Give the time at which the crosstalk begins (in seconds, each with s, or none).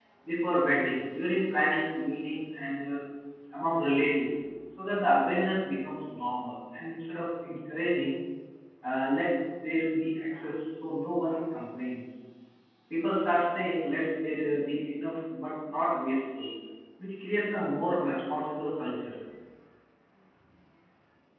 none